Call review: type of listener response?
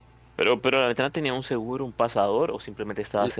taking over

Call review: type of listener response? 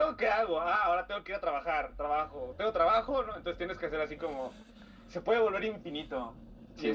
listening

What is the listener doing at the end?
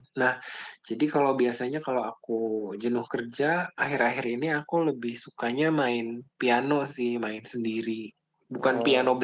listening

